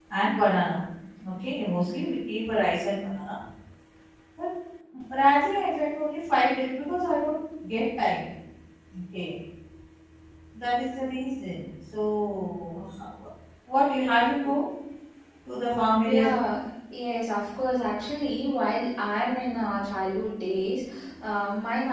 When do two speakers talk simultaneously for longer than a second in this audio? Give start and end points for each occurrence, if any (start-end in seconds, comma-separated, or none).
none